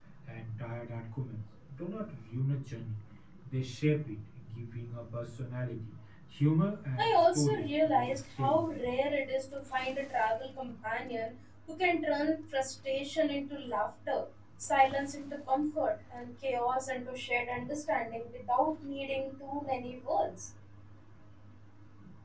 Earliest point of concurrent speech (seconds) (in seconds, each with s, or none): 7.0 s